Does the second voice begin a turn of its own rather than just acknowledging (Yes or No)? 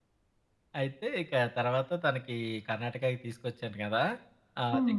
No